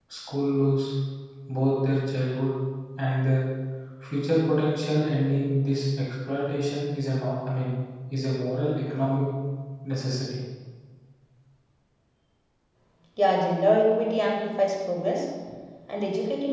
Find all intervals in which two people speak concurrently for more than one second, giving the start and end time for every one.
none

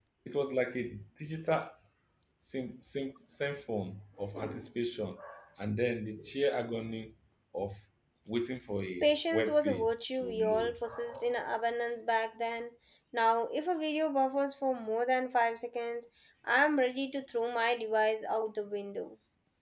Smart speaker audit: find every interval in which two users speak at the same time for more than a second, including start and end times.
9.0-10.8

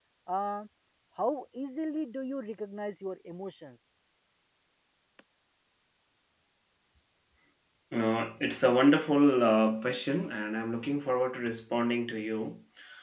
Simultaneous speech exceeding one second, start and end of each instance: none

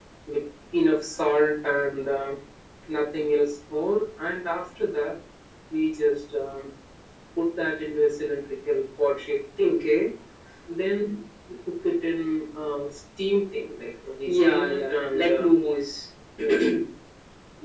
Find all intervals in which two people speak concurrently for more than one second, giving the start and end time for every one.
14.2-15.5

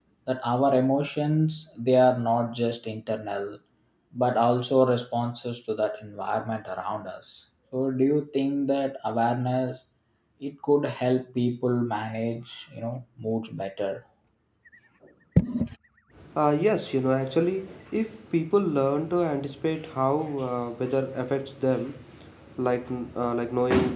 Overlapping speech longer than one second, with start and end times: none

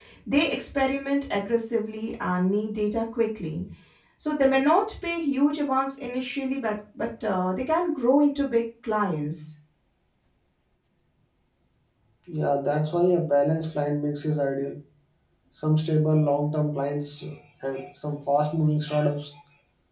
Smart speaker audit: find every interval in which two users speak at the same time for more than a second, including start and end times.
none

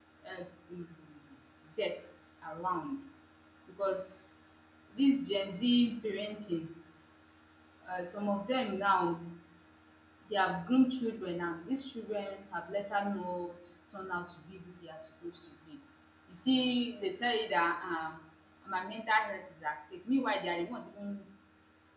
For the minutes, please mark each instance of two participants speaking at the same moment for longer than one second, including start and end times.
none

